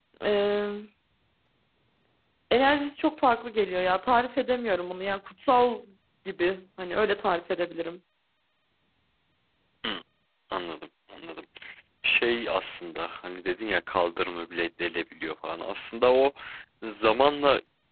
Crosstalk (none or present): none